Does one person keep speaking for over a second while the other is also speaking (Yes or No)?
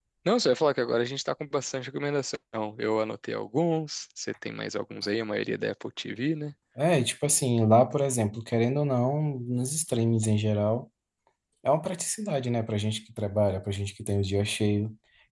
No